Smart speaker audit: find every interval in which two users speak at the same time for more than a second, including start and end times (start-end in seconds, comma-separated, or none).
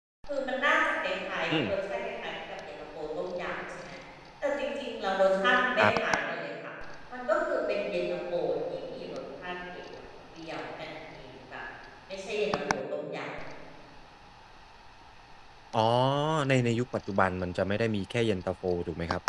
none